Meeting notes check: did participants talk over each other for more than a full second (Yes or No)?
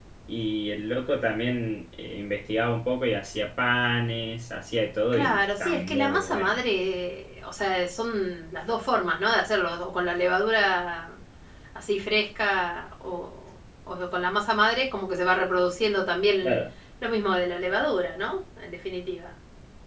Yes